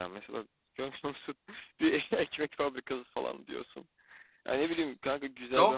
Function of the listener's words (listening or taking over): taking over